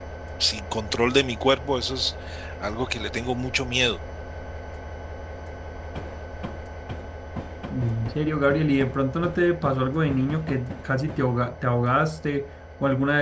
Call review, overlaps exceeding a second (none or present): none